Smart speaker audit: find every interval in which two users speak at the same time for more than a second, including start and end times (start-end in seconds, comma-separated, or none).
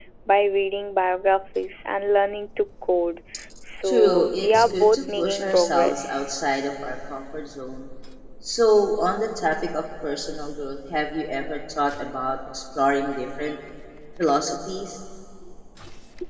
3.8-6.3